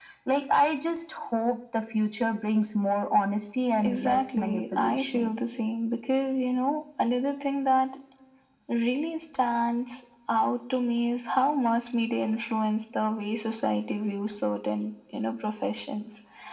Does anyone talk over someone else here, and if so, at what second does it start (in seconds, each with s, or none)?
3.8 s